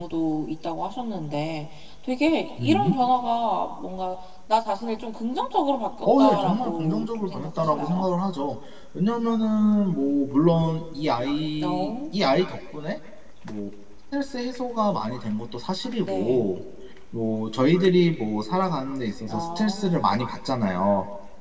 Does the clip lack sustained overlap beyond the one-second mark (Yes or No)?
No